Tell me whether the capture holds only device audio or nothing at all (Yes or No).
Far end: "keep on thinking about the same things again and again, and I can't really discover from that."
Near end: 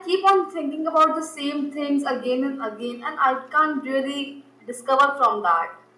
Yes